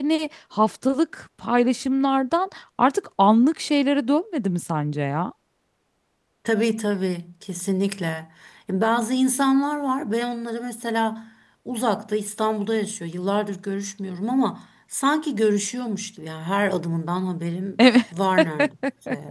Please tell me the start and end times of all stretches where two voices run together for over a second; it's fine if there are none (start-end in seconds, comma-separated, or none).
none